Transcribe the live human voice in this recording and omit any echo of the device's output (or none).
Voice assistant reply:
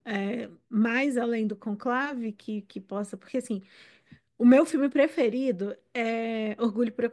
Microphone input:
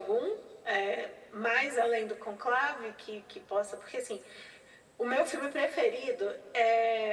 none